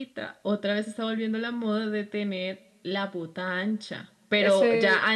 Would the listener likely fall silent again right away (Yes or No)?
Yes